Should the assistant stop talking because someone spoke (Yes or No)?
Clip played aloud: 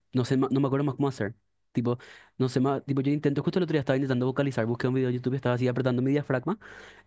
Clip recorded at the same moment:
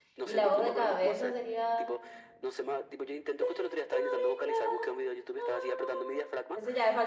Yes